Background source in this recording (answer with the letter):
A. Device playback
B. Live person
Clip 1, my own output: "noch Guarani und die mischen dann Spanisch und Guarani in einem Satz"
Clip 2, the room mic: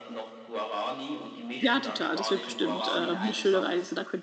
A